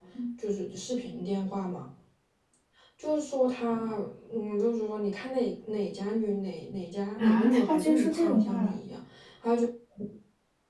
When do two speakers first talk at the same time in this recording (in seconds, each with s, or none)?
7.2 s